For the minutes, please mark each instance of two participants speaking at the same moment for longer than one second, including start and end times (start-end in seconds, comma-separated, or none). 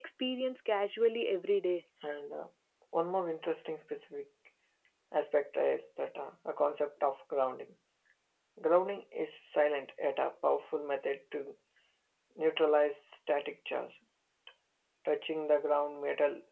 none